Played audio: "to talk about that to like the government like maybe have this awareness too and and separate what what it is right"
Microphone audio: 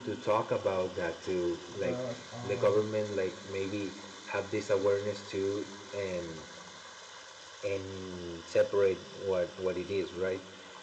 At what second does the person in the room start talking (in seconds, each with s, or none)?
1.7 s